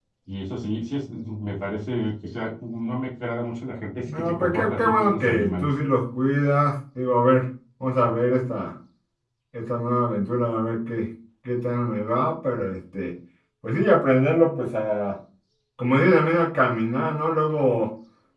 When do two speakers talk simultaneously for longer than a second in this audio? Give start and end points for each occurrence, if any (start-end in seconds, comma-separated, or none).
4.1-5.7